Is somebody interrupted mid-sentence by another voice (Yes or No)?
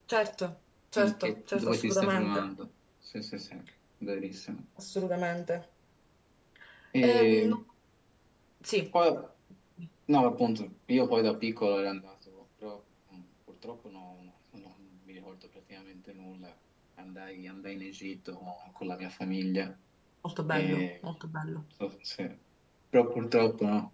Yes